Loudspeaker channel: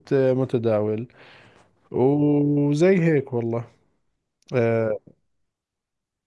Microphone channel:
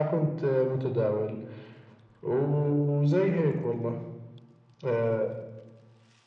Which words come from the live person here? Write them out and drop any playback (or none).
none